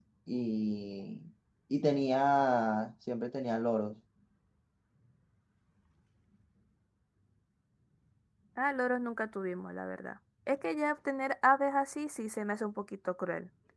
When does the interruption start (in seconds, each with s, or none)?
none